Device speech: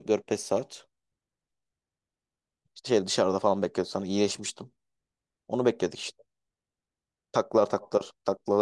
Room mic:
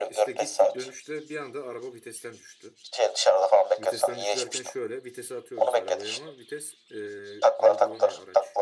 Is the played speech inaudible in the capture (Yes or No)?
No